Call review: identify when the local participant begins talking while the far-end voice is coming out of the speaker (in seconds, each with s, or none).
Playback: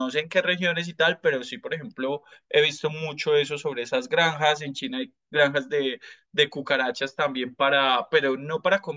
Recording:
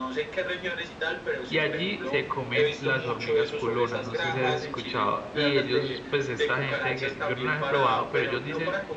1.5 s